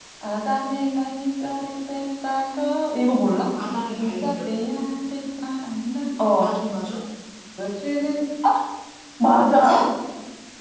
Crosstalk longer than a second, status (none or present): none